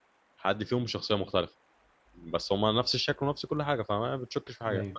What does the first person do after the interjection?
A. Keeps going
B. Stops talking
B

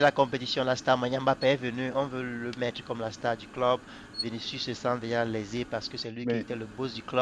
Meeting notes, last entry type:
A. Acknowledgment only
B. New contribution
A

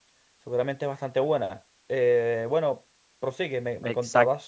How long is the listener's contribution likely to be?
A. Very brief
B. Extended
B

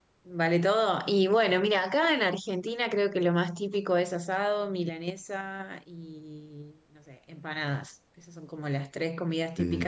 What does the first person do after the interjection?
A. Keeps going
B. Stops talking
A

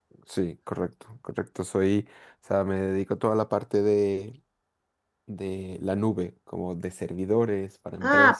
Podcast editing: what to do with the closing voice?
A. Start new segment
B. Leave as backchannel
A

